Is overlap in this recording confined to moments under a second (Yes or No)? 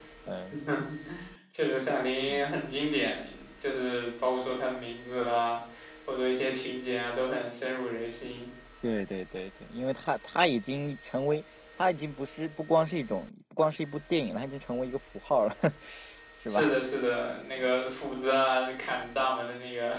Yes